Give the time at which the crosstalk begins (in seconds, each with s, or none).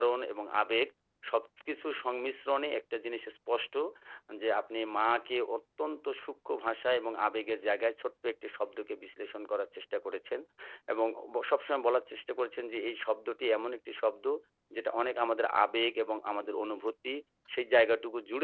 none